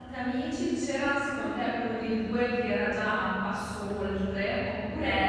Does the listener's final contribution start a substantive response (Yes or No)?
Yes